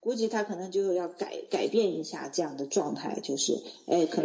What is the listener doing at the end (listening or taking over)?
listening